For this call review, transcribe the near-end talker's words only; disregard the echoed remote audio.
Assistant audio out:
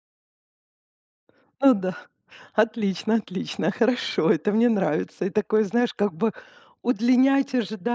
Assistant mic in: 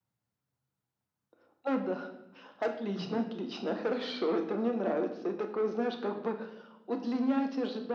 Мгм.

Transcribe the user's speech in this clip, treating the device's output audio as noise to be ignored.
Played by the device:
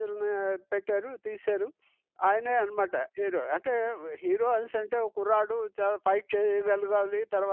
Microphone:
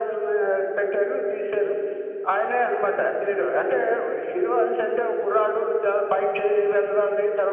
none

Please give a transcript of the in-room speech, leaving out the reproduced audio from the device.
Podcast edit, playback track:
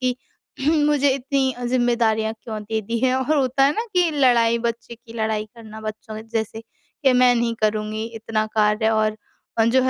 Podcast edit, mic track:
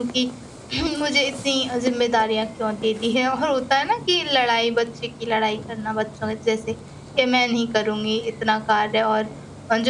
none

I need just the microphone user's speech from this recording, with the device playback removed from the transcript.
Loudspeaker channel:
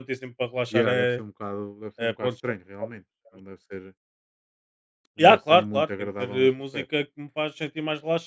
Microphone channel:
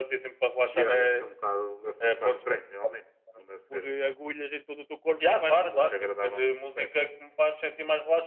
por eh, agulhas em todo o teu corpo, como é que vais relaxar?

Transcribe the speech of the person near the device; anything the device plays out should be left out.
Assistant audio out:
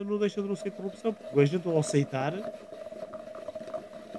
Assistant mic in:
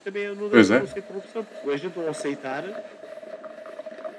Pois é.

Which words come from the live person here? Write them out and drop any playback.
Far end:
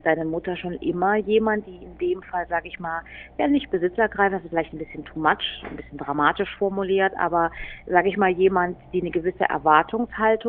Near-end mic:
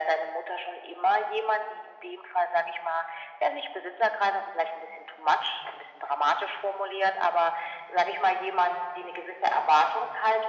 none

